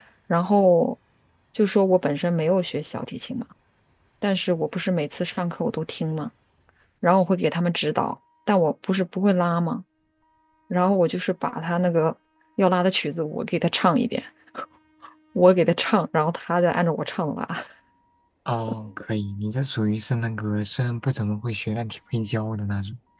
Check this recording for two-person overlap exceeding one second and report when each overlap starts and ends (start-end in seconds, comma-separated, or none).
none